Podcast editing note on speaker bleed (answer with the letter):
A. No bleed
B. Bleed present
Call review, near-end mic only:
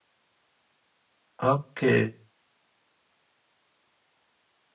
A